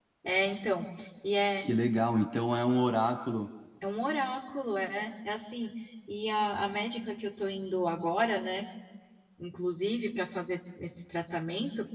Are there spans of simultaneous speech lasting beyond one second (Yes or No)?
No